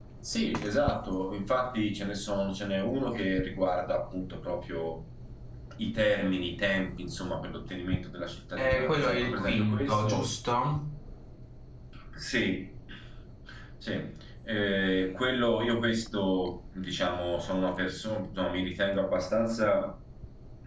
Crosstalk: present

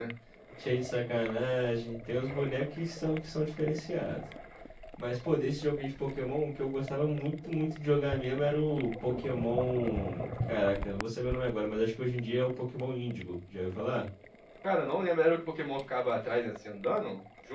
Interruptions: none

